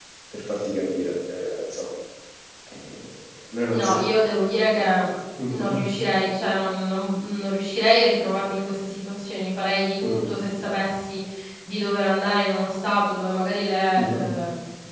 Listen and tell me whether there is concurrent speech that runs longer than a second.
No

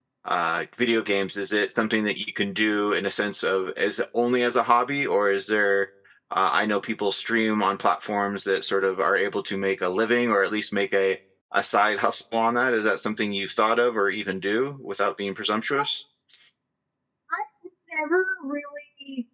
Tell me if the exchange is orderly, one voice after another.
Yes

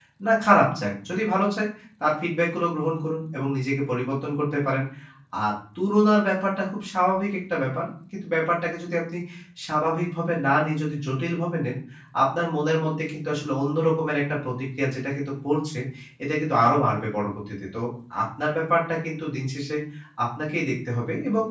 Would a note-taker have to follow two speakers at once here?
No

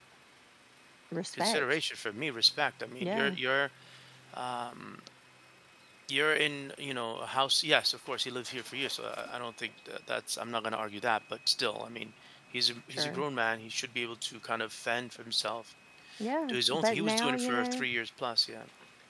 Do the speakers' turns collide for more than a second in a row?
Yes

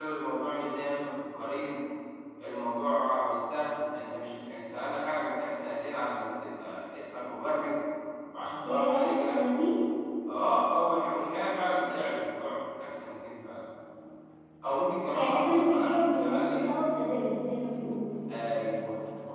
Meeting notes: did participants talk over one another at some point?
Yes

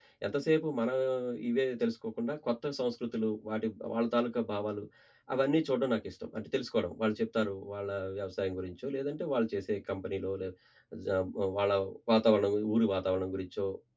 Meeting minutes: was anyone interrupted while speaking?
No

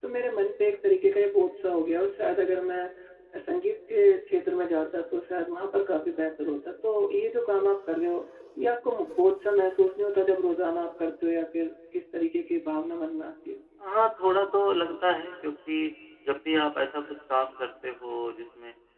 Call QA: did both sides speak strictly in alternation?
Yes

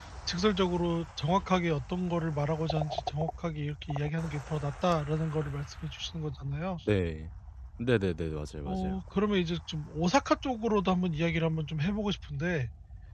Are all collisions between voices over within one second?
Yes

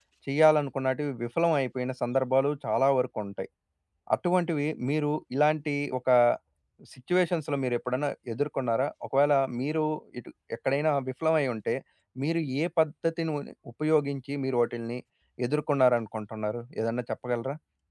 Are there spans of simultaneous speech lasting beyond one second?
No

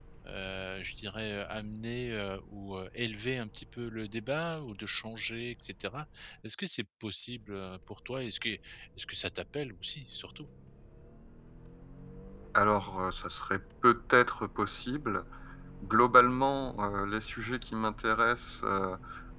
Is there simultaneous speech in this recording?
No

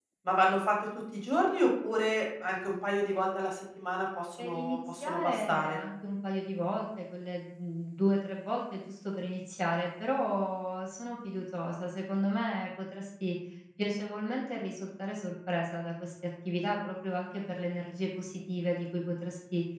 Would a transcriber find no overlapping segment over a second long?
No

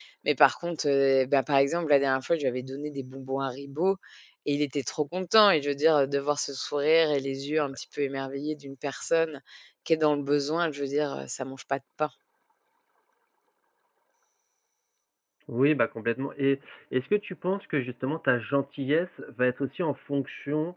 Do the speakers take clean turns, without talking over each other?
Yes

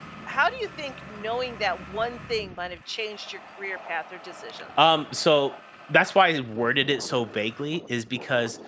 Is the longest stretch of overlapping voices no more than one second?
Yes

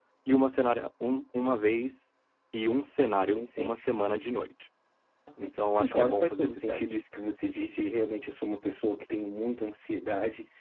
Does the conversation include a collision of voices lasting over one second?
Yes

